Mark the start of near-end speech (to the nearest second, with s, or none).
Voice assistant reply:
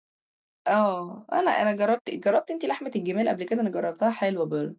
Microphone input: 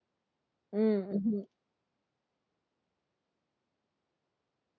1 s